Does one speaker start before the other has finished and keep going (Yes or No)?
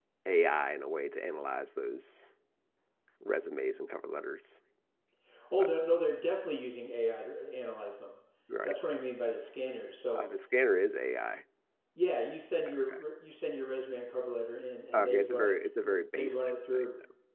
Yes